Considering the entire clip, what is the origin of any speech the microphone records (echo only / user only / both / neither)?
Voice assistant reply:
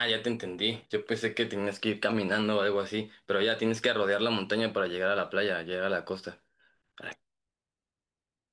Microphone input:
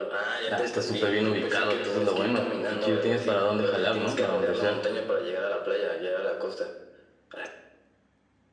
both